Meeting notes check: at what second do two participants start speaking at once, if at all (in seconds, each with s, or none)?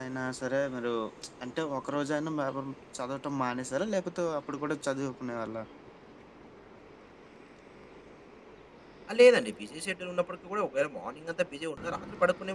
none